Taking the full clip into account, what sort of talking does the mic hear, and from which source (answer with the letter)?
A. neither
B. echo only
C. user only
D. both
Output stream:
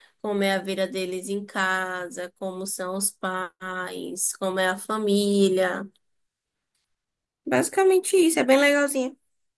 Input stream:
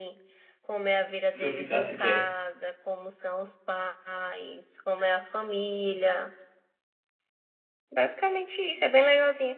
D